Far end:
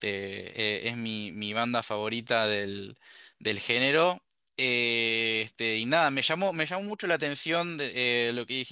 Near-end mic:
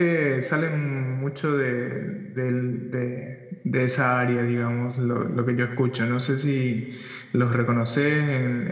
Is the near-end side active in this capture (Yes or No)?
Yes